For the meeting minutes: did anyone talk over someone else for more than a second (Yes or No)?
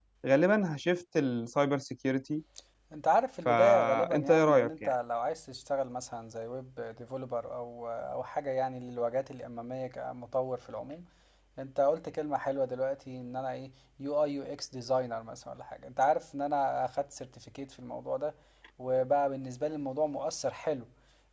Yes